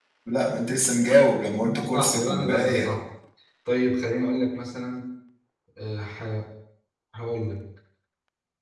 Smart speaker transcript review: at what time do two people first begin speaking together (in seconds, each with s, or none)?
1.6 s